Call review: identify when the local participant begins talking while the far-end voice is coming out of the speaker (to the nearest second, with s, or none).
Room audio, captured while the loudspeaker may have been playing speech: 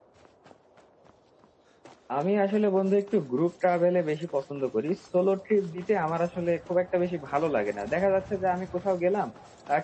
2 s